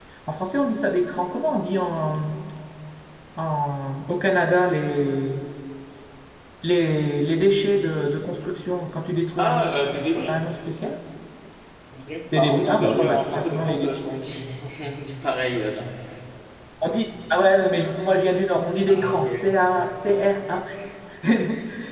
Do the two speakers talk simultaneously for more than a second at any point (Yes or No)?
Yes